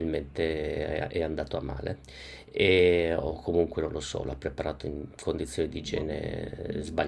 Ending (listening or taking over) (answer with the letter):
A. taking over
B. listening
B